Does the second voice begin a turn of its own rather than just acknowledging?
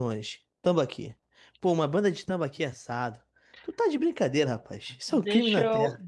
Yes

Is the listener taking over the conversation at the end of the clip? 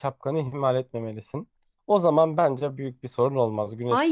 Yes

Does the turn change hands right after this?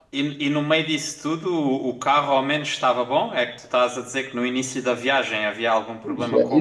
Yes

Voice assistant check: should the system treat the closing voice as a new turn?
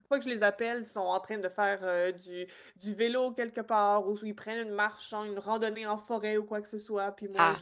Yes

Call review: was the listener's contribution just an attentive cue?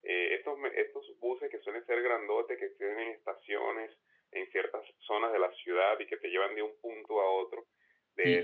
No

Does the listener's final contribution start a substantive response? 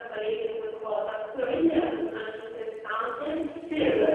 No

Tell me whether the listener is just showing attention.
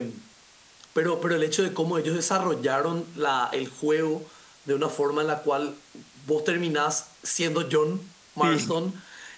Yes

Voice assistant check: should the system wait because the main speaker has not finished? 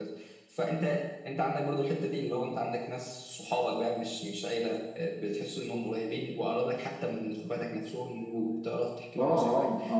No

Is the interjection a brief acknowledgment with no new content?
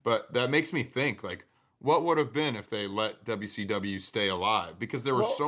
Yes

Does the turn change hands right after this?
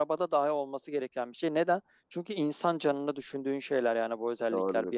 Yes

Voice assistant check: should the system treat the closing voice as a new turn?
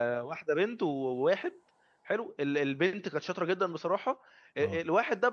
No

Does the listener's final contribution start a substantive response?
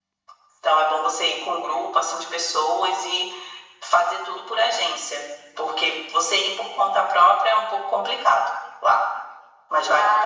Yes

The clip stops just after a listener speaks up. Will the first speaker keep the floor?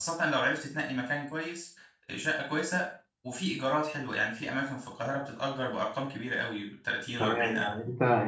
No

